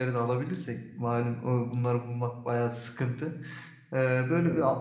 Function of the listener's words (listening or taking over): listening